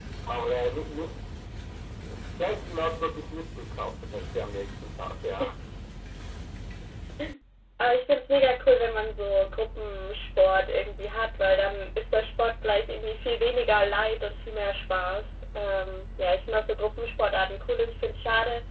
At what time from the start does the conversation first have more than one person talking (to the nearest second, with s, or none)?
none